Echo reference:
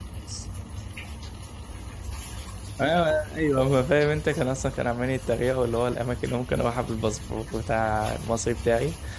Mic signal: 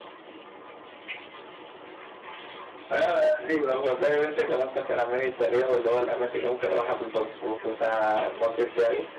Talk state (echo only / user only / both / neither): echo only